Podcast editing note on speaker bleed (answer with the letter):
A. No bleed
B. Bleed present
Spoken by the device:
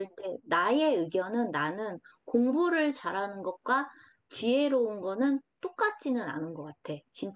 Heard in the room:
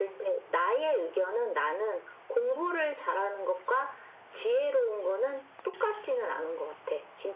B